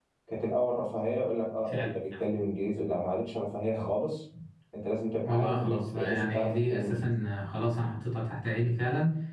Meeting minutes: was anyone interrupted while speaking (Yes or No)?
Yes